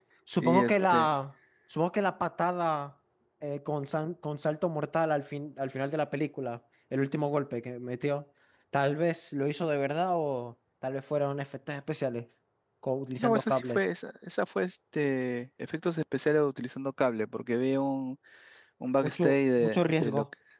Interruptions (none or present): present